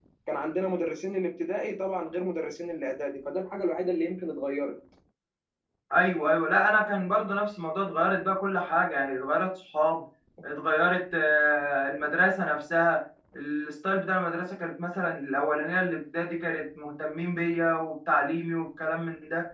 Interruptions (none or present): none